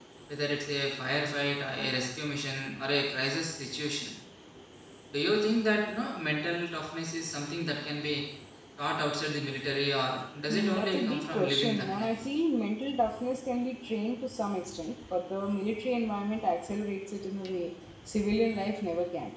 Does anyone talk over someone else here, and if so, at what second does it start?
10 s

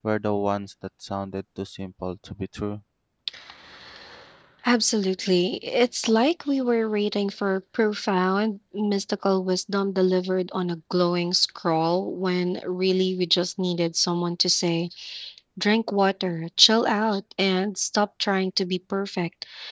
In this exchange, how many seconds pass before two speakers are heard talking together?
none

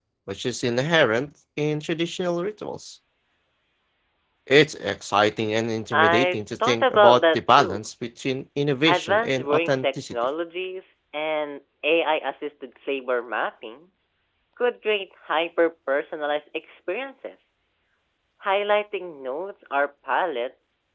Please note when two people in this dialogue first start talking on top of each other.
6 s

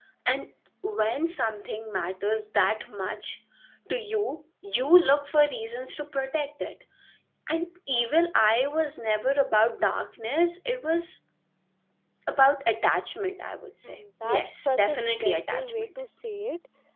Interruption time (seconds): 14 s

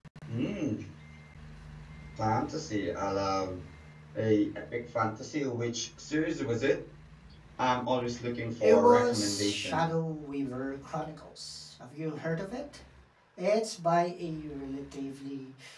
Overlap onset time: 9 s

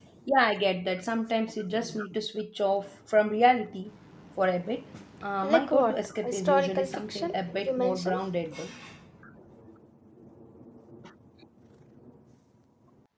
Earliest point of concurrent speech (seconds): 5 s

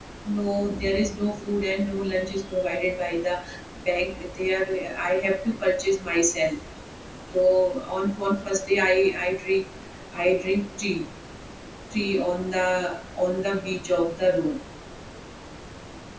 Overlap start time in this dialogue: none

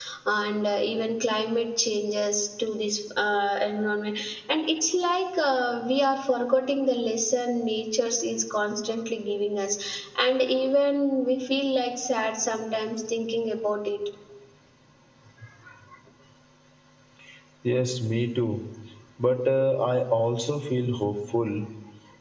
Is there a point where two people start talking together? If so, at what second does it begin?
none

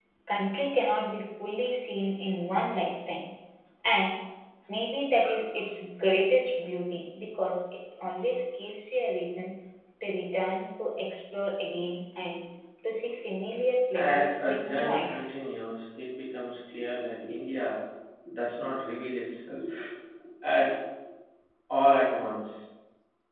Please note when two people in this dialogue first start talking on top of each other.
14 s

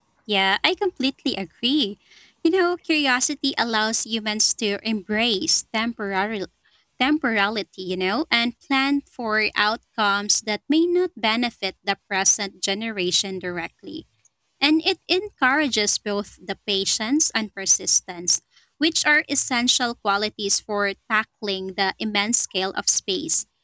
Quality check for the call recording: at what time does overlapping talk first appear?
none

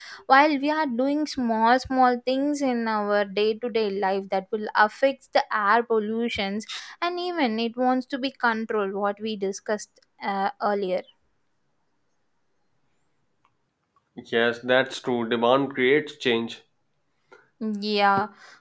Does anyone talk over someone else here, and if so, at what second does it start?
none

